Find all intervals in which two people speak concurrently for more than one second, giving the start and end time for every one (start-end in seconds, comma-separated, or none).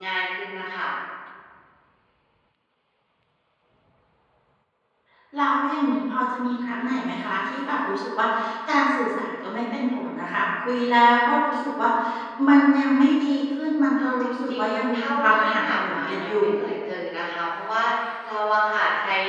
14.0-16.5